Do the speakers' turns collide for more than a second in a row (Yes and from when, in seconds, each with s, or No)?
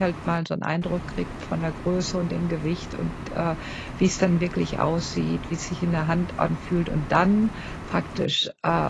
No